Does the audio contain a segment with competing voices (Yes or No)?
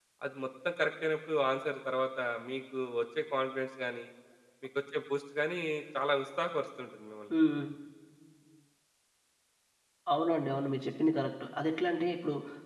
No